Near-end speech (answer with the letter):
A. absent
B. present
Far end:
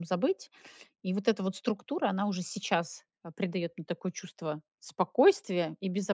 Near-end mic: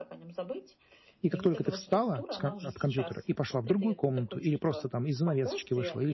B